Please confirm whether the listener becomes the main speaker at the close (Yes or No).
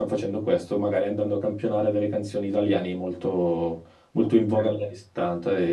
No